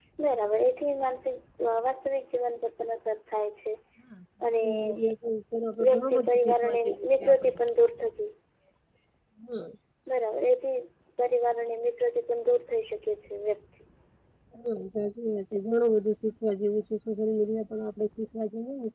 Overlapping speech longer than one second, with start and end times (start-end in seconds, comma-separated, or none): 5.8-7.5